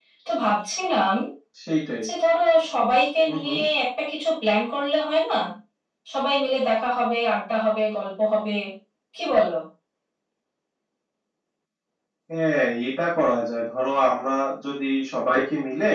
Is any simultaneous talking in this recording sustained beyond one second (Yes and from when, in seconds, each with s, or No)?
No